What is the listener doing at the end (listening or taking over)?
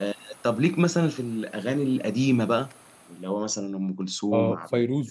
taking over